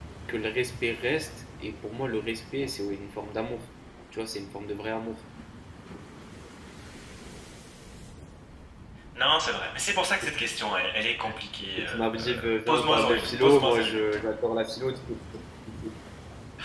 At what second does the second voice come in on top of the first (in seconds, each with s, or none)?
11.8 s